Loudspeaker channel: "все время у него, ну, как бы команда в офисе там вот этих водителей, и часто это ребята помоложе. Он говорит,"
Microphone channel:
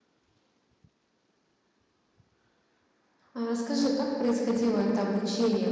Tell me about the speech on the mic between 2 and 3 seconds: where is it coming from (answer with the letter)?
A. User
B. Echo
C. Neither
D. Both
C